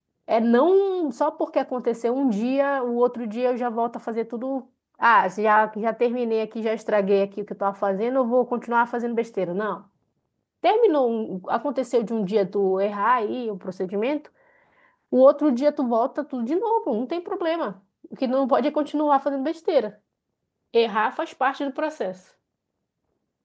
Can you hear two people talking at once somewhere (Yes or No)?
No